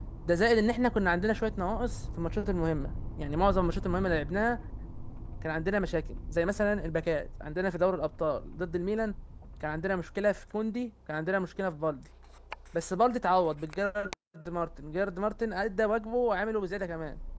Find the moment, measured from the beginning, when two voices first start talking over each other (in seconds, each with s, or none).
none